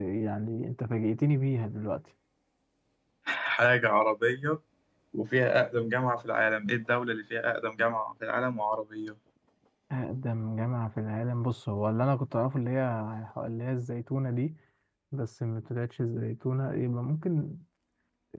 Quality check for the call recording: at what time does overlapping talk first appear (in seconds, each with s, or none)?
none